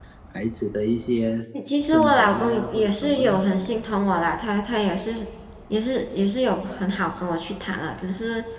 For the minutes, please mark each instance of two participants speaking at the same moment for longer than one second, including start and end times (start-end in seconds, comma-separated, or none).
1.8-3.4